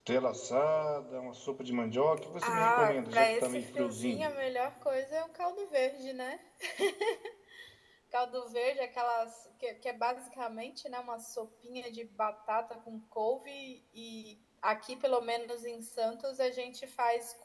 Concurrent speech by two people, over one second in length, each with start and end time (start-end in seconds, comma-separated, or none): 2.4-4.3